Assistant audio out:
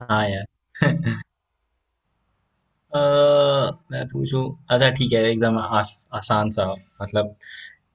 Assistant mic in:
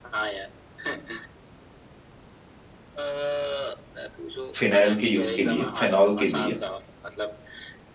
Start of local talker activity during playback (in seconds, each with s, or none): 4.5 s